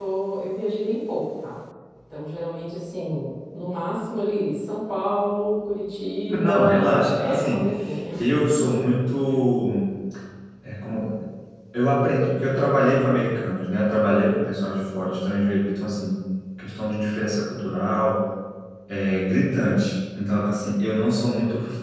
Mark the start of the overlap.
6.3 s

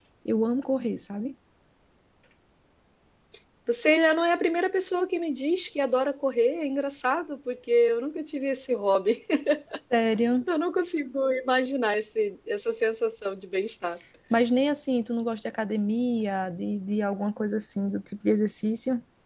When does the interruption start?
none

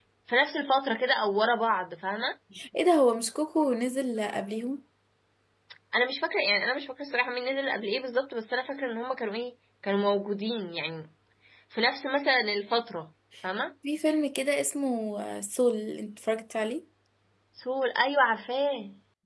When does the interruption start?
none

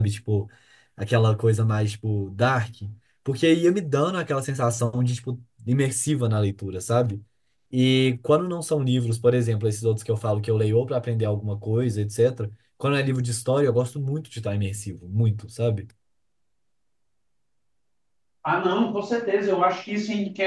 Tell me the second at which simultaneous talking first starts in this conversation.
none

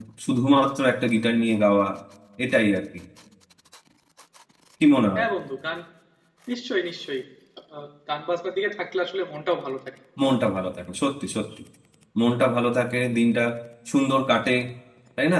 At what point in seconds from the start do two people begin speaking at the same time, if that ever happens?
none

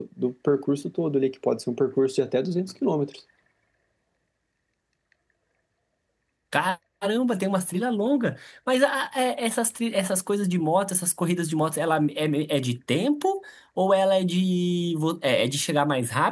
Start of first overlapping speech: none

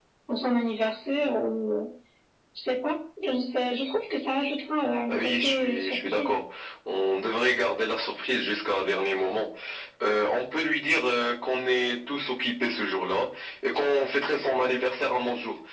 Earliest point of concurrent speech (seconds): 5.1 s

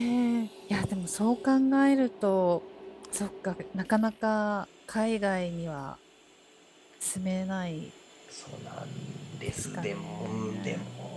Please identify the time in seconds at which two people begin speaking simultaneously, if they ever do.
9.5 s

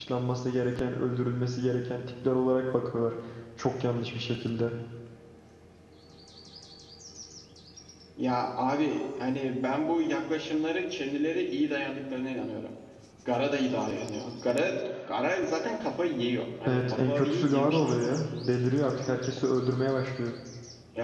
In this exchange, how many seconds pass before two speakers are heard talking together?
16.6 s

